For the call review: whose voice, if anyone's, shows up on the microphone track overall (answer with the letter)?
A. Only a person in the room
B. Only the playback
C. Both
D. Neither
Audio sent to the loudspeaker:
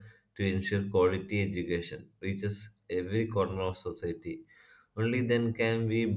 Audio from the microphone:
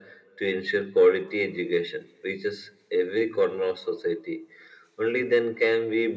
B